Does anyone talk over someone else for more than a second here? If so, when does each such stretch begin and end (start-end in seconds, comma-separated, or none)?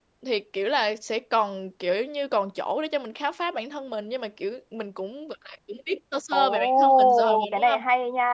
6.3-7.8